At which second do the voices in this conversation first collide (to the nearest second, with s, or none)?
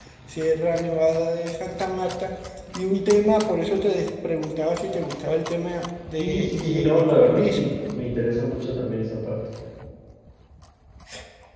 6 s